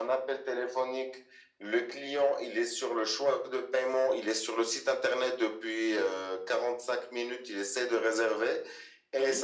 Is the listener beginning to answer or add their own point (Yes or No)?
No